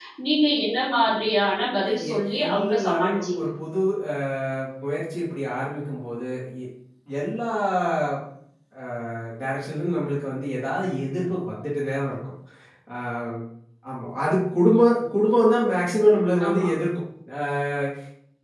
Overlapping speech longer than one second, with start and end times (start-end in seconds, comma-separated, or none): 2.1-3.5